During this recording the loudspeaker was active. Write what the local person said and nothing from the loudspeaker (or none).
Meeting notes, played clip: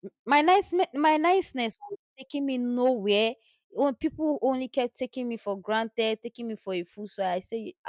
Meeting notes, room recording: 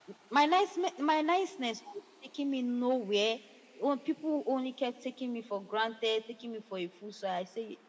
none